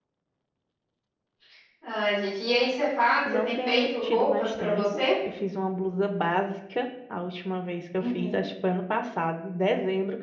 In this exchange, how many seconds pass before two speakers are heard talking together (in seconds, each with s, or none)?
3.3 s